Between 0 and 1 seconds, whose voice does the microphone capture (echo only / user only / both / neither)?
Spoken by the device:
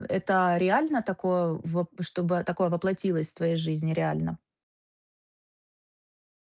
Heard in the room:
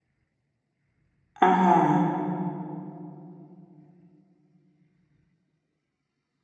neither